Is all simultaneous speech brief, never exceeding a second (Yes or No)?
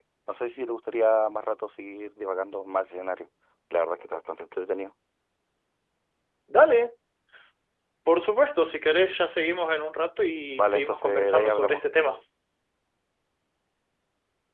No